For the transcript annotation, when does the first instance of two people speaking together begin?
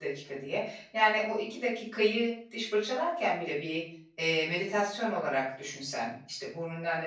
none

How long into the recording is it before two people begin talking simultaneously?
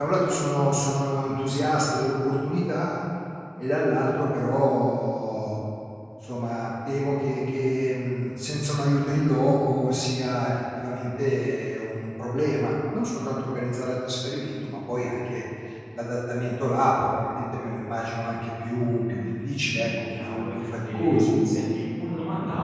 18.7 s

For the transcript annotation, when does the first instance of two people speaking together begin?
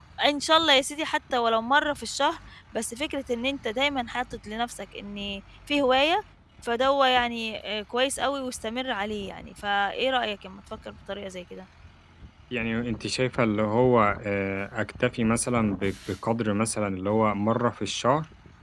none

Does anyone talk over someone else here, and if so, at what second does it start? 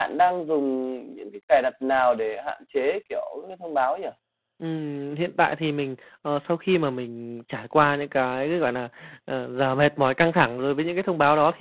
none

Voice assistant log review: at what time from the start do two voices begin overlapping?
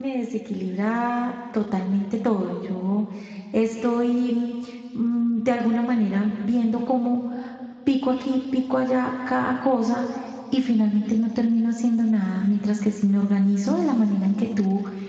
none

